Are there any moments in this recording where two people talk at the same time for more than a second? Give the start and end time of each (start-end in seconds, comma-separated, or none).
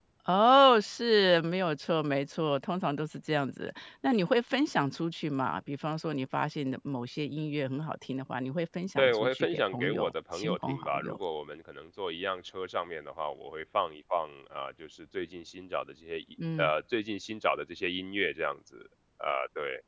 9.0-11.2